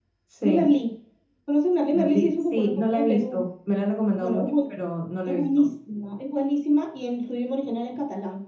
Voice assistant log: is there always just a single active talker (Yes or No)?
No